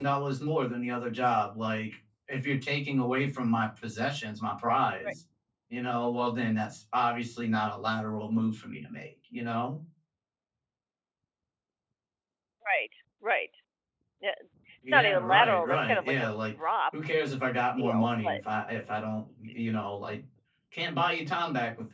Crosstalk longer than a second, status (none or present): present